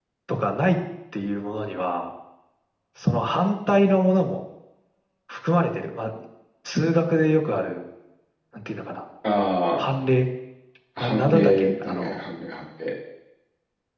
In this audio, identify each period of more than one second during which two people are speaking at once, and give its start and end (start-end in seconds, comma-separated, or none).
11.0-12.2